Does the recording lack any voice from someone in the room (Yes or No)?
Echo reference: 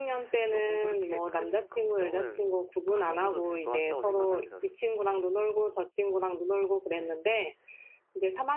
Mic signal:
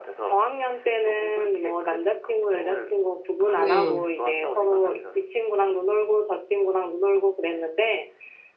No